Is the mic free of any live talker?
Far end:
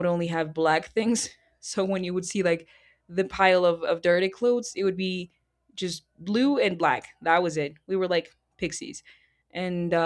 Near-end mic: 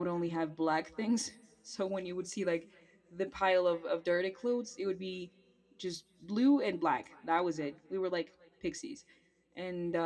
Yes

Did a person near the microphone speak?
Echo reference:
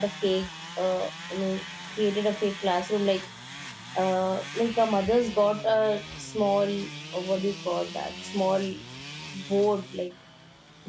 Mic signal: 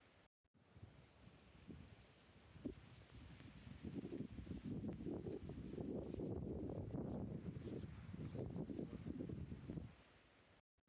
No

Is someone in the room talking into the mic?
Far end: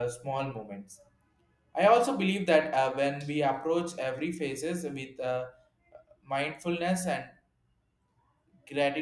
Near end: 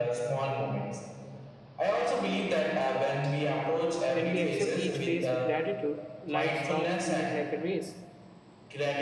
Yes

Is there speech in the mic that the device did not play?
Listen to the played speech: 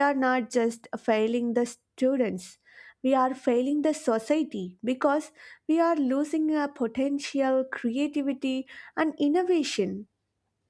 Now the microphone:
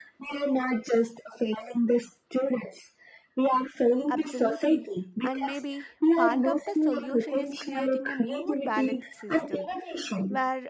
Yes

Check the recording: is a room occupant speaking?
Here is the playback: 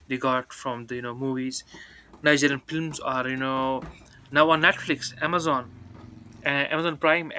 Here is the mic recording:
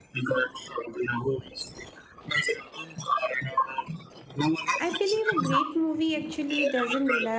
Yes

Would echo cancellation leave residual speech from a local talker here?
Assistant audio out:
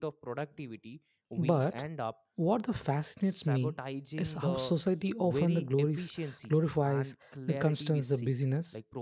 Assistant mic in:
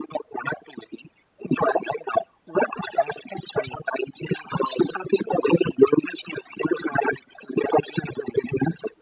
No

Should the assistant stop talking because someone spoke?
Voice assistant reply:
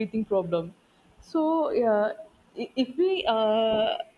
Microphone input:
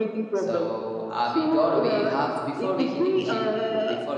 Yes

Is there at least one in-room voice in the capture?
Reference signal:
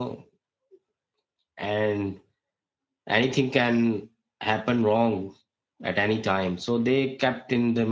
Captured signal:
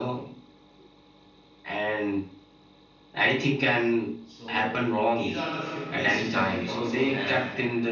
Yes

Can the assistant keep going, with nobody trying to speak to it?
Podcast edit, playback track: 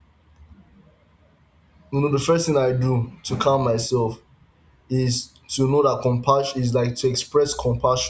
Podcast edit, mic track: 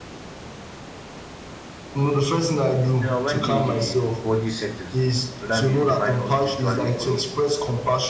No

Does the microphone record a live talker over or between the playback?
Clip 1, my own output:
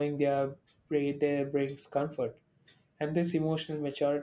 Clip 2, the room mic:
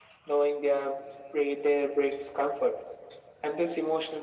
No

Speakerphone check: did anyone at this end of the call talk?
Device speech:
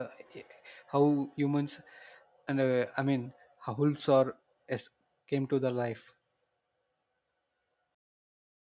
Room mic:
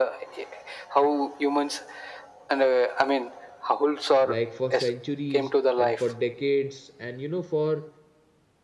Yes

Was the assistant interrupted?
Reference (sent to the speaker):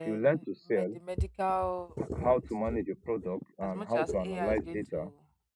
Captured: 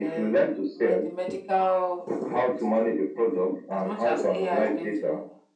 No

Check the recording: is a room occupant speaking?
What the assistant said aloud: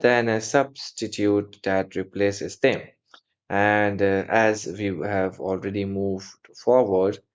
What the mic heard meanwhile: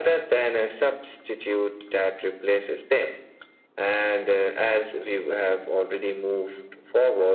No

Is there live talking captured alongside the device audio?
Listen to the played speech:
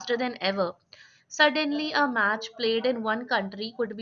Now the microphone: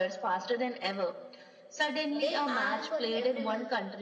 Yes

